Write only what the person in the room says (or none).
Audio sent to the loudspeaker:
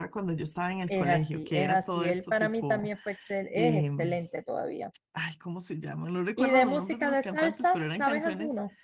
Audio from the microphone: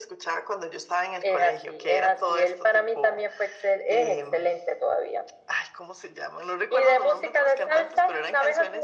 none